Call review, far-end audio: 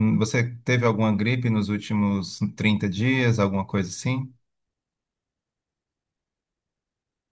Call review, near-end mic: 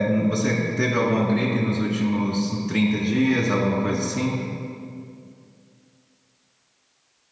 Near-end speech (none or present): none